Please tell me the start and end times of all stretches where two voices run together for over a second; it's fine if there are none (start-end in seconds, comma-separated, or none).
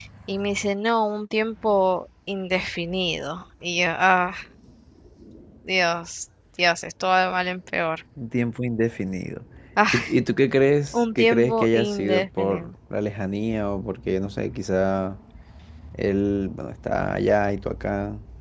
10.9-12.7